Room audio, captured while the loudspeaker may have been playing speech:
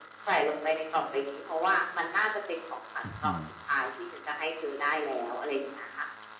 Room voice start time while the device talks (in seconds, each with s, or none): 3.0 s